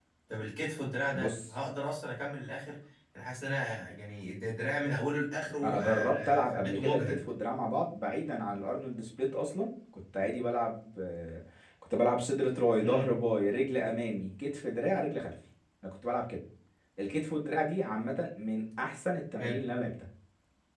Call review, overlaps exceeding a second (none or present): present